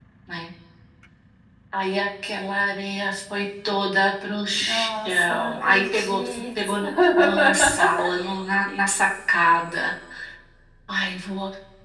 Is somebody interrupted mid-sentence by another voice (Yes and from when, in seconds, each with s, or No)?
Yes, from 4.5 s